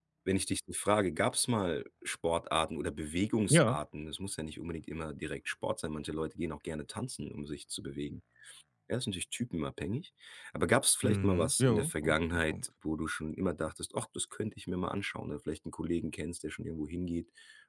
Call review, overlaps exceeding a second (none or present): present